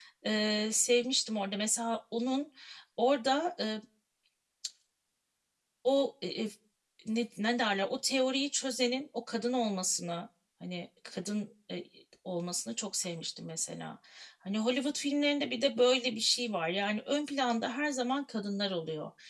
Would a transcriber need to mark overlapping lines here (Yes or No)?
No